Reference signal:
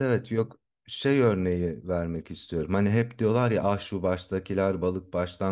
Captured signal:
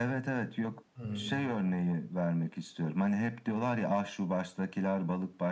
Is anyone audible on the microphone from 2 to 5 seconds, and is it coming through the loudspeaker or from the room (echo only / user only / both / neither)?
echo only